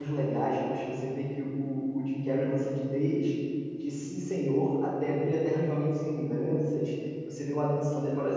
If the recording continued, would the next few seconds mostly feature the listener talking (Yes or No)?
No